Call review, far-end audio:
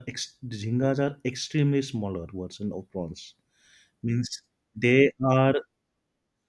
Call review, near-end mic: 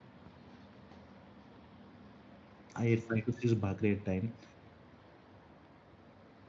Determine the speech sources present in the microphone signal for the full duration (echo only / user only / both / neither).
user only